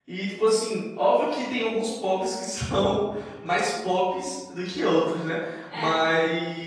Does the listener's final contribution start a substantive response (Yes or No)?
No